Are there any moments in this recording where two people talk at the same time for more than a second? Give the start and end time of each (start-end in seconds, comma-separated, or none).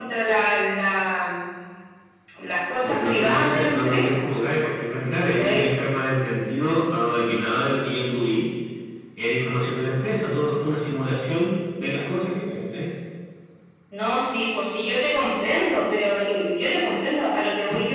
2.8-4.2